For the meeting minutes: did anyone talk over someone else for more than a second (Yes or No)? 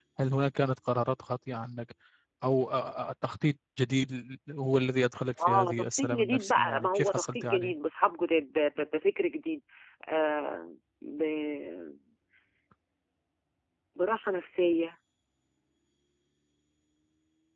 Yes